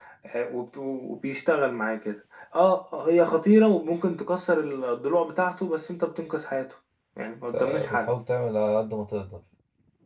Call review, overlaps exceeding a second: none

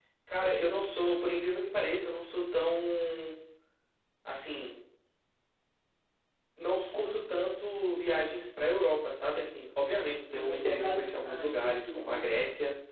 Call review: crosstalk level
present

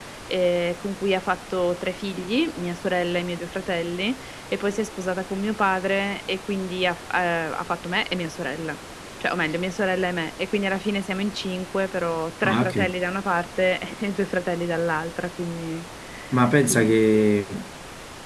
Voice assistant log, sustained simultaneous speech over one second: none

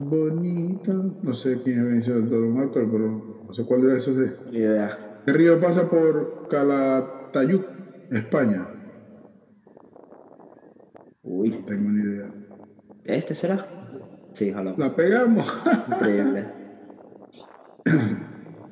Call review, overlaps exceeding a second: none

